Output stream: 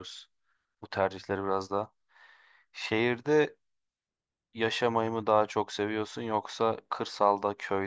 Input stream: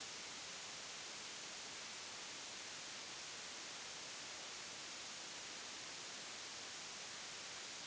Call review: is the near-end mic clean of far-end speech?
Yes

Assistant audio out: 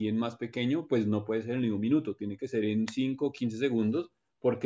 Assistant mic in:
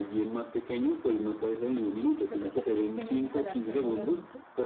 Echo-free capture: No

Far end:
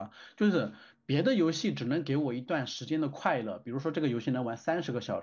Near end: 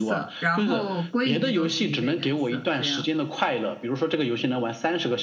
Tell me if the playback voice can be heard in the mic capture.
Yes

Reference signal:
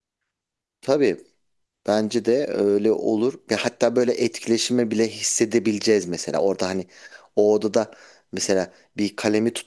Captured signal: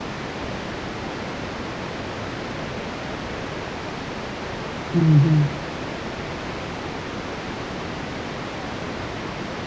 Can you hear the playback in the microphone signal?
No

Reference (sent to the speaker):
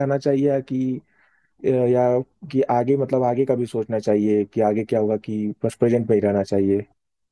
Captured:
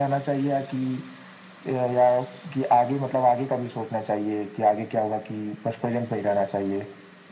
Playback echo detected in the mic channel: Yes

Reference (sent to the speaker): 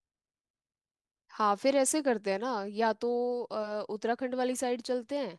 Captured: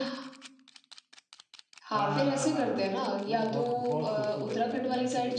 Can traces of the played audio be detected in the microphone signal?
Yes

